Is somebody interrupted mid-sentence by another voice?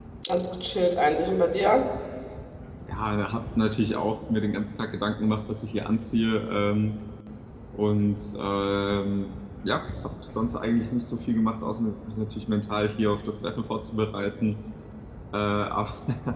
No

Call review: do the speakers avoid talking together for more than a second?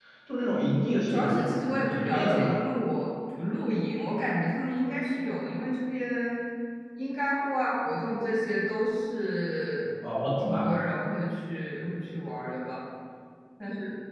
No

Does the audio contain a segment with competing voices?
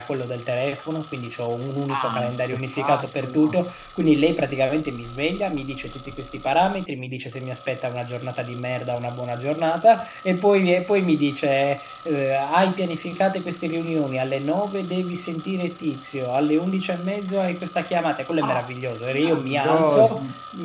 Yes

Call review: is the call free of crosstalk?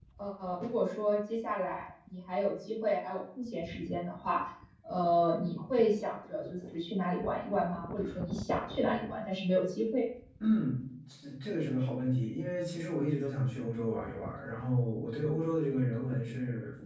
Yes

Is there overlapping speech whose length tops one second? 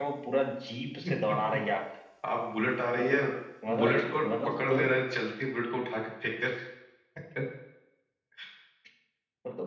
Yes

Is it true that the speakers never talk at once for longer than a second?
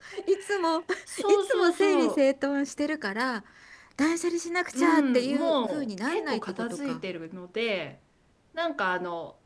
No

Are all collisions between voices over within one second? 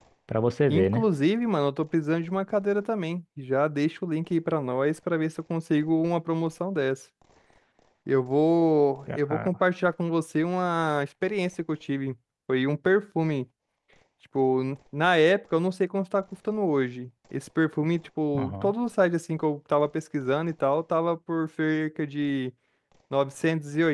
Yes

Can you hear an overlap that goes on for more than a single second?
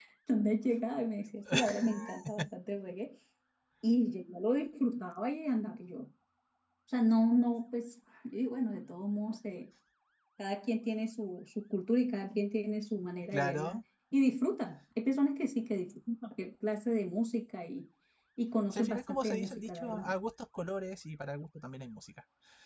Yes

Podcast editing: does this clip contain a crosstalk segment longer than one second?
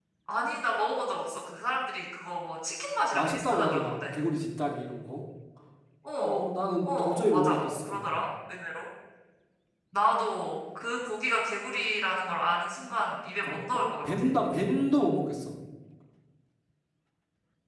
Yes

